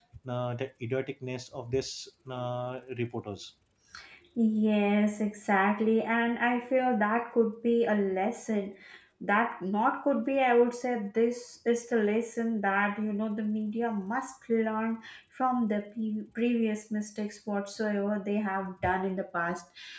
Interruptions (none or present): none